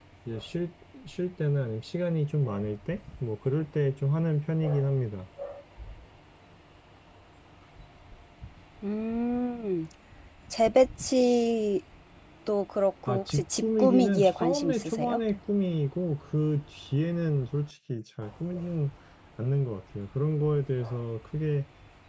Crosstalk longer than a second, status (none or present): present